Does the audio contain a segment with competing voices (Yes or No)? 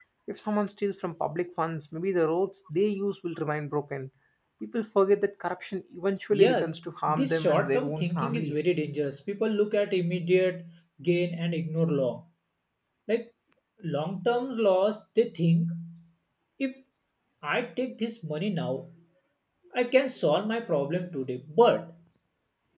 Yes